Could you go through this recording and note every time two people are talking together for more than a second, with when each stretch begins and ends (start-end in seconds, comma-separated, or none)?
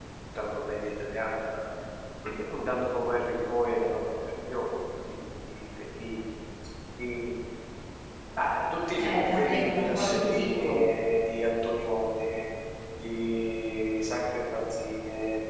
9.0-10.8